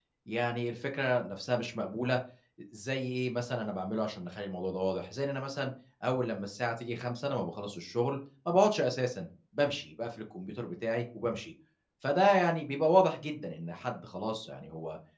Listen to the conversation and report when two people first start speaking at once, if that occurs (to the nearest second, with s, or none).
none